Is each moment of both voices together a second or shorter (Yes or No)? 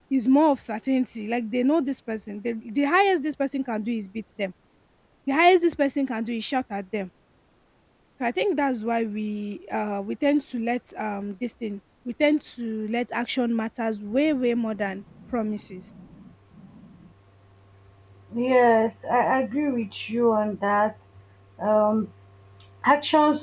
Yes